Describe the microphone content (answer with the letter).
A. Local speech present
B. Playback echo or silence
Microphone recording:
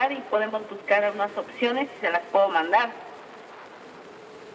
B